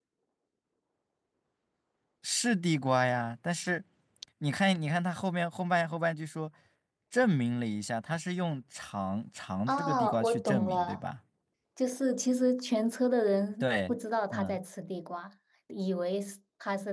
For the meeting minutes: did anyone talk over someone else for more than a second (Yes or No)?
Yes